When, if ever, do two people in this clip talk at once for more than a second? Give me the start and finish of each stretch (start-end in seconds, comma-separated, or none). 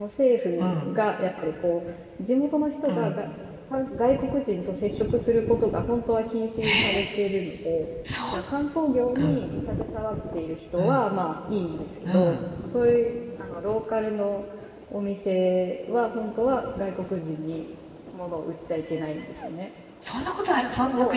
none